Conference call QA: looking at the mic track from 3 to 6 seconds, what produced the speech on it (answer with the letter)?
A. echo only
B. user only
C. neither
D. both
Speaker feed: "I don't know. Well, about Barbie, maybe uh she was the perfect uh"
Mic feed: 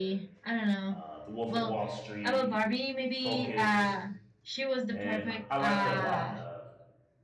D